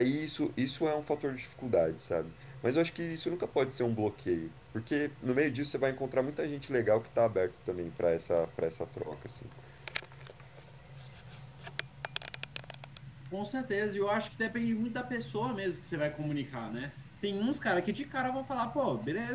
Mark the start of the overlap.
none

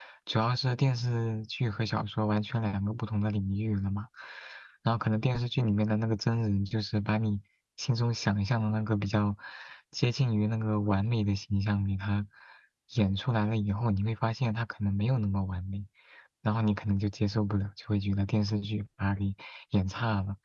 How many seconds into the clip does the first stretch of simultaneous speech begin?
none

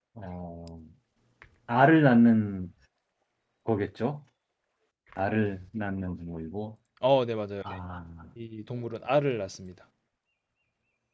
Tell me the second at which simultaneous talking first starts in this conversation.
none

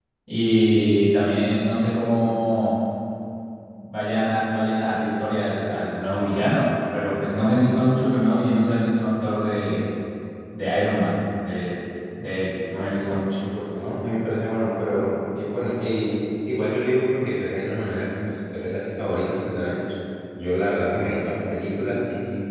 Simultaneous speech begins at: none

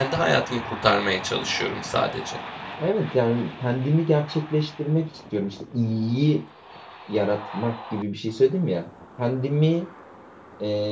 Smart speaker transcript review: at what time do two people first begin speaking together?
none

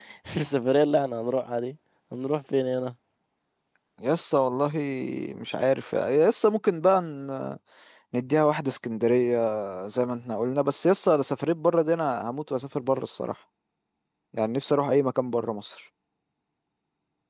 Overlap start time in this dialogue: none

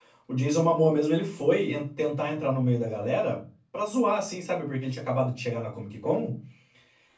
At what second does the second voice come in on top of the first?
none

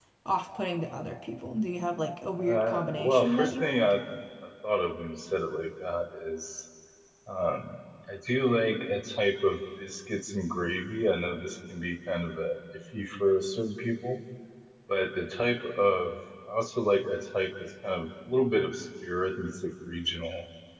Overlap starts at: 2 s

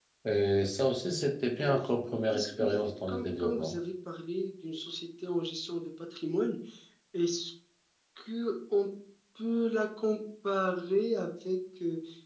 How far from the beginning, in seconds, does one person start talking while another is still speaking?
2 s

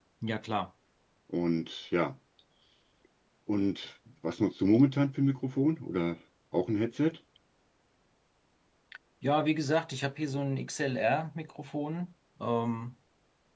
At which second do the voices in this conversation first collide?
none

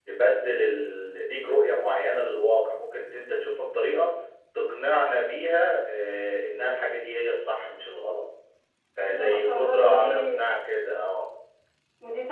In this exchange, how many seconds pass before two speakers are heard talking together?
9 s

